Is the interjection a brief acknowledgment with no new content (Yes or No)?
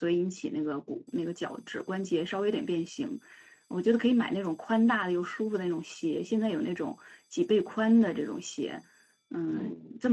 Yes